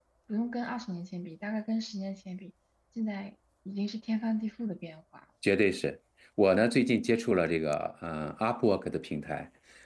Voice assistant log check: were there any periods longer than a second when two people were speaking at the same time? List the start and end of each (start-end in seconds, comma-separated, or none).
none